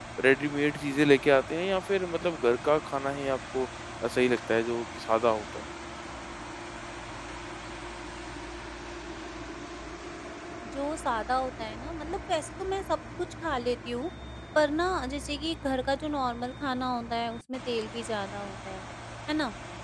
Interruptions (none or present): none